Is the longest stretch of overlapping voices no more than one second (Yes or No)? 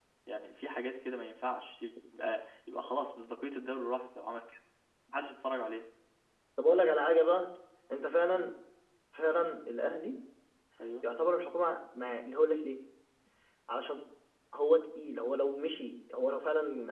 Yes